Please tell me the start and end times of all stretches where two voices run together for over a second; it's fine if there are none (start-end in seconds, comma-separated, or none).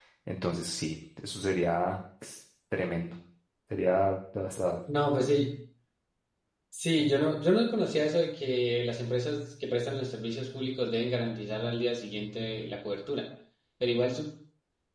none